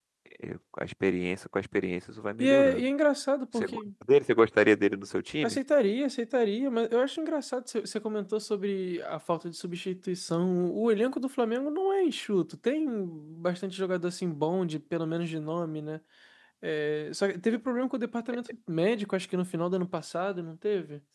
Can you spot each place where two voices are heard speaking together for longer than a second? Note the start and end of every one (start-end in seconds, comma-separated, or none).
none